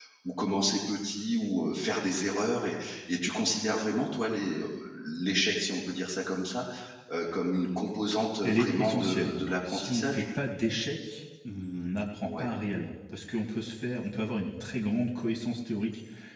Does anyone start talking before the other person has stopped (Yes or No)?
Yes